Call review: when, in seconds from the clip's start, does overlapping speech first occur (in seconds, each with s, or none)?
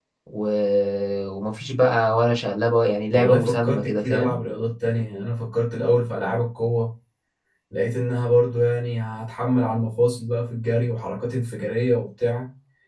3.1 s